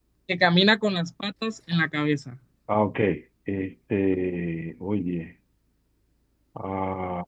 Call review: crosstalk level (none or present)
none